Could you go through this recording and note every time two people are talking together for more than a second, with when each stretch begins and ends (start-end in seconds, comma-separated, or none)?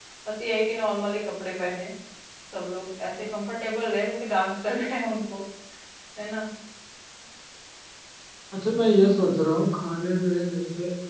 none